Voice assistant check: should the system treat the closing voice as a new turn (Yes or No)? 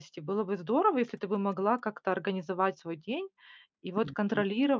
No